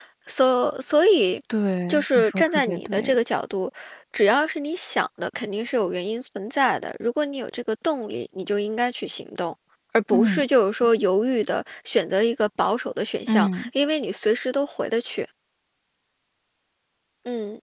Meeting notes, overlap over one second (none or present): present